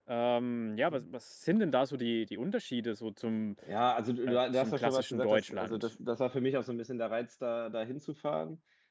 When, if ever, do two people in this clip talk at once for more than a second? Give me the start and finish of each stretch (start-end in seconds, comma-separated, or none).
4.3-5.9